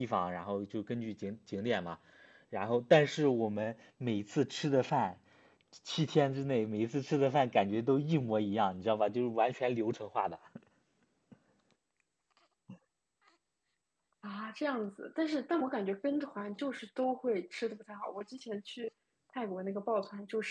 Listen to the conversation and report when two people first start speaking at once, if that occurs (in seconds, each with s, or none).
none